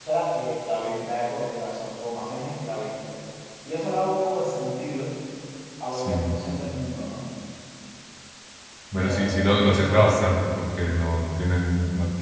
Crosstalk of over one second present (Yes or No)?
Yes